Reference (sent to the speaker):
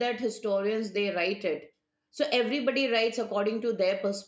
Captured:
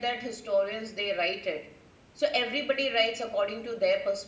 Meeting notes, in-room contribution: none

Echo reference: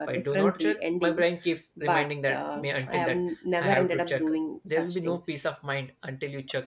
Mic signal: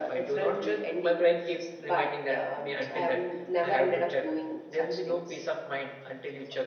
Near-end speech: none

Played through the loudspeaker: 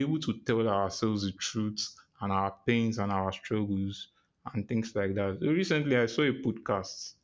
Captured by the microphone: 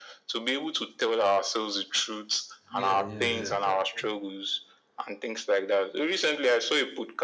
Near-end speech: present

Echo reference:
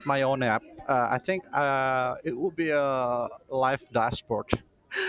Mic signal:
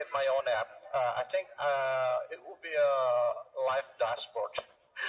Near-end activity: none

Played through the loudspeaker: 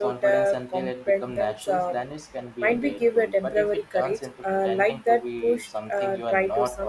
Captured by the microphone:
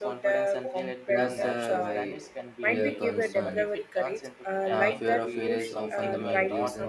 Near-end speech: present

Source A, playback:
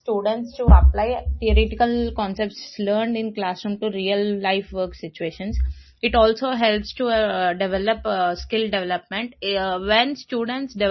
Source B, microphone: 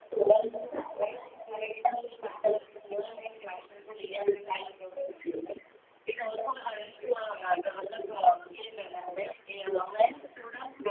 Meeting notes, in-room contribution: none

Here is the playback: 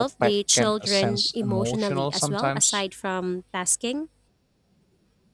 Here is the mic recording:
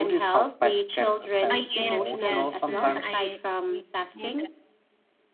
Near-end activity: present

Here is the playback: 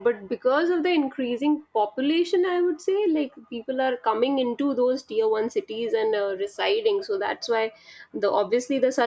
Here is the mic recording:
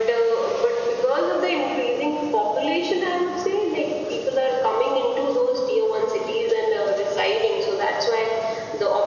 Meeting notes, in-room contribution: none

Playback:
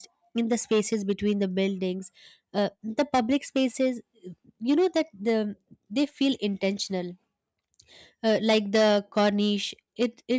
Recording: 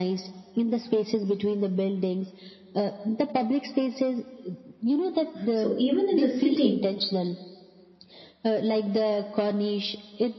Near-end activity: present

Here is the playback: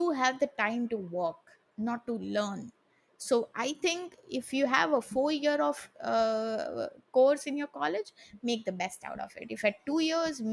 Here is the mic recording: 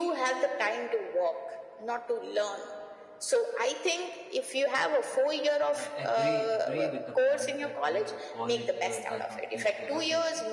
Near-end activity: present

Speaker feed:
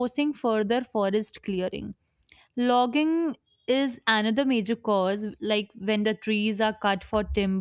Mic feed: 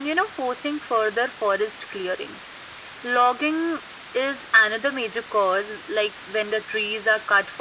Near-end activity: none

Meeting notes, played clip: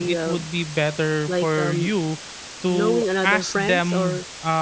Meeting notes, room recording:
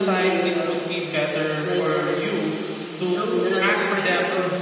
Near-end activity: none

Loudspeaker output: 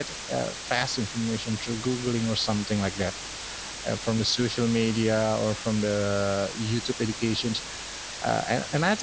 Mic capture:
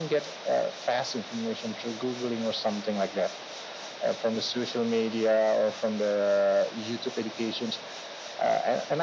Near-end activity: none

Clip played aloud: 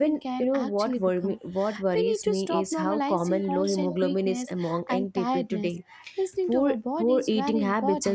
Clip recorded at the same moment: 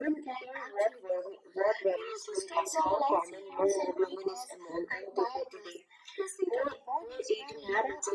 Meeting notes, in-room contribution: none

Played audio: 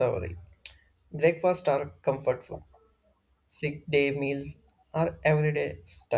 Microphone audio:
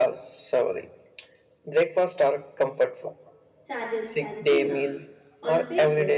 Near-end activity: present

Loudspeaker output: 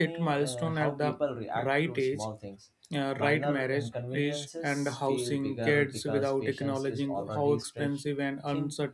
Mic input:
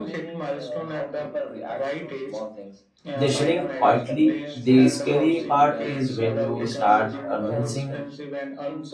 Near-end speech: present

